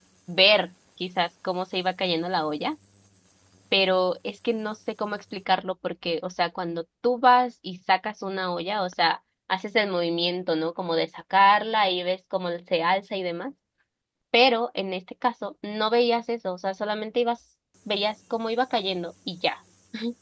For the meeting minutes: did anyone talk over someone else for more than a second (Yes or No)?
No